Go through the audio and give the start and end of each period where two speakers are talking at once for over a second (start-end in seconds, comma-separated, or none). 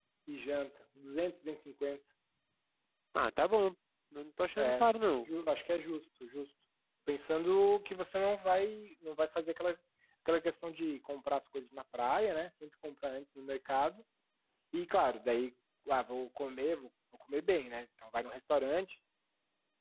none